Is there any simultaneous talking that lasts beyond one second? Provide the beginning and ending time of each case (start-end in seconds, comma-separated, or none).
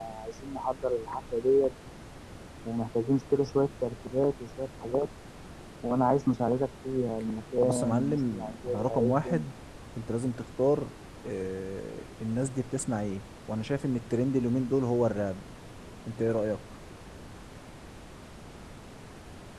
7.6-9.5